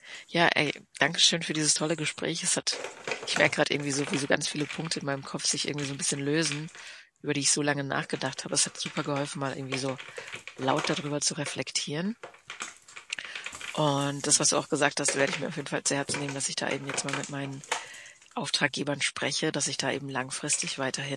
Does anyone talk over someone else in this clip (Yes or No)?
No